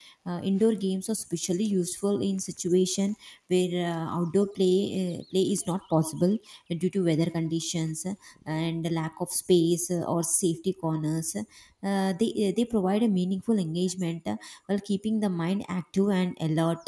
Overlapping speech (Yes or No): No